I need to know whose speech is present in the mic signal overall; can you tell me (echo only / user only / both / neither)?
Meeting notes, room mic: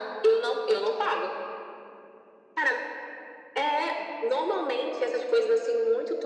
echo only